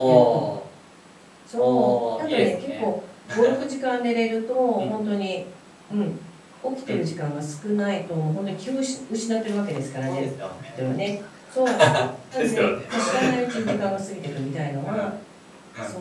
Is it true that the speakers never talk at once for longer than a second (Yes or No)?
No